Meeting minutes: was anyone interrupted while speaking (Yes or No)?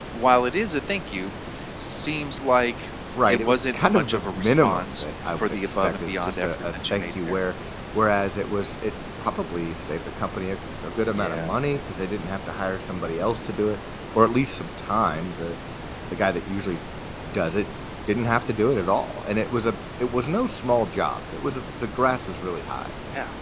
Yes